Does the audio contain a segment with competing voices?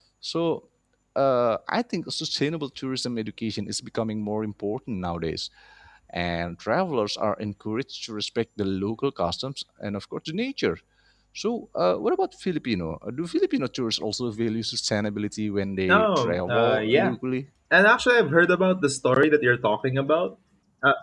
Yes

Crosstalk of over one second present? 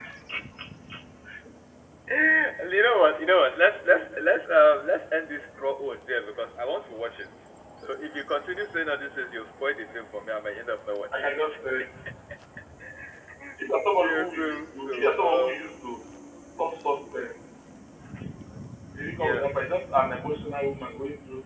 Yes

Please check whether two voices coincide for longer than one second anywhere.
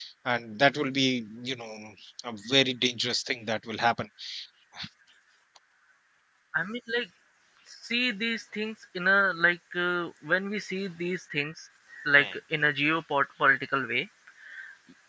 No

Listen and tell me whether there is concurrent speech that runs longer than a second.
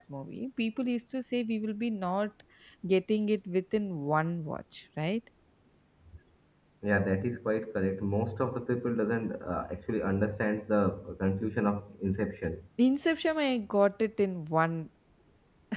No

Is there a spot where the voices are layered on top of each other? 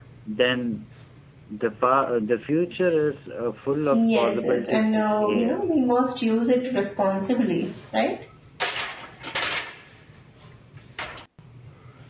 Yes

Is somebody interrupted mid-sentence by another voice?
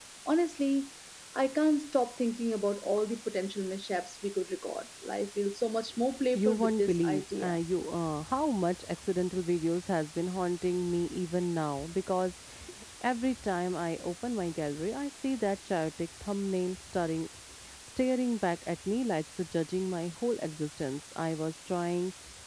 Yes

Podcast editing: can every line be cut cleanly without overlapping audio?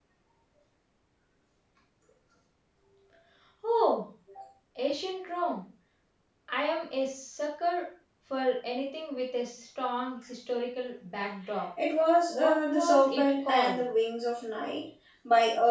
No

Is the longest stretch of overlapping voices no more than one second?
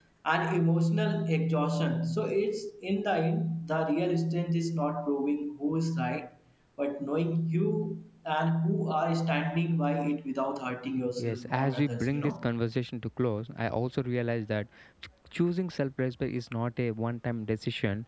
No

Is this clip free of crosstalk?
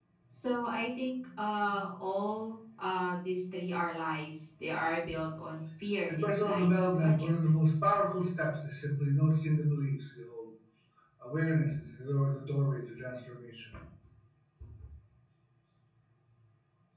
No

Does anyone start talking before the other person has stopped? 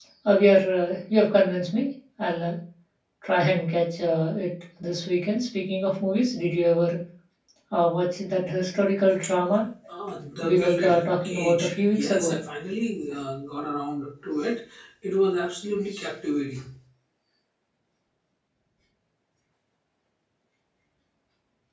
Yes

